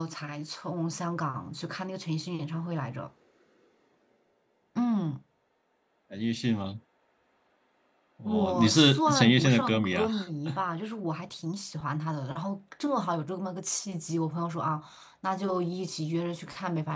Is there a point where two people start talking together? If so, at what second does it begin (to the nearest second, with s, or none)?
8 s